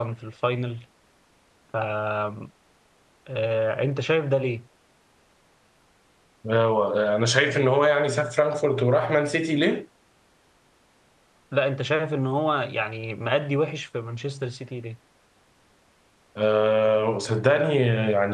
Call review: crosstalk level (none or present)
none